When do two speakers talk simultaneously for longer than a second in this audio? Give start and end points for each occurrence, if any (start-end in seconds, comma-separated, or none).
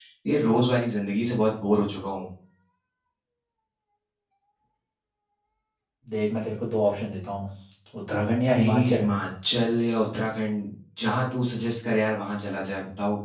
none